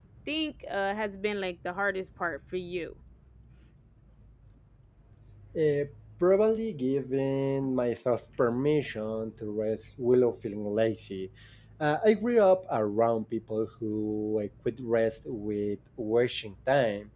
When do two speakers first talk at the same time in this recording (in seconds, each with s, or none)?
none